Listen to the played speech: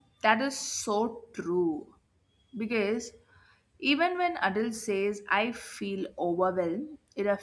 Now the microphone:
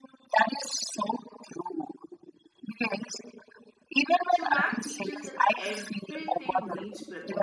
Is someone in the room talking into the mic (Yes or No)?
Yes